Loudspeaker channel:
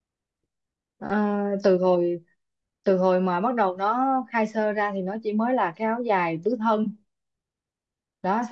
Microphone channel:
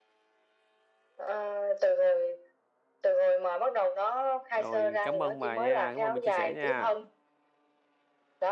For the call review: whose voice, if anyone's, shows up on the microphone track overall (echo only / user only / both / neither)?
both